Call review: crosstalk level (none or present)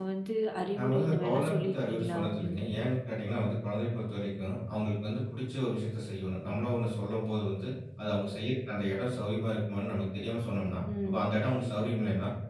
present